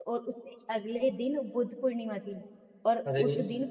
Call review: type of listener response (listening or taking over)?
listening